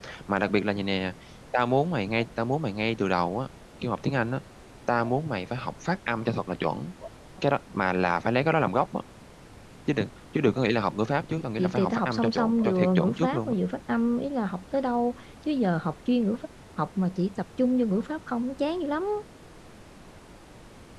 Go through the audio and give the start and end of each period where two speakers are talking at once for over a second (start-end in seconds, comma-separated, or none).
11.6-13.5